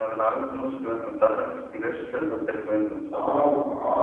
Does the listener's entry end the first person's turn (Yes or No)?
Yes